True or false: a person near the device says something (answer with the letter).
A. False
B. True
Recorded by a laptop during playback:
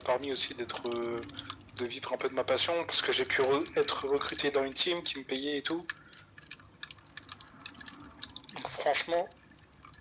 A